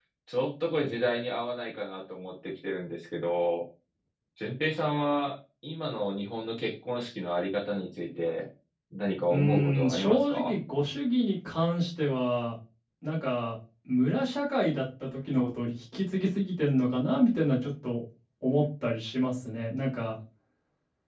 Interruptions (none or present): present